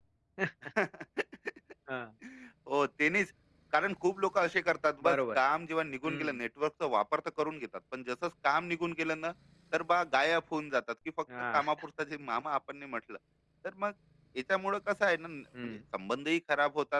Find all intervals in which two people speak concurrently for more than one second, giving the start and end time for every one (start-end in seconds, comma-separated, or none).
none